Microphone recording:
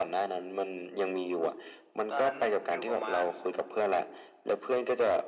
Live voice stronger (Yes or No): No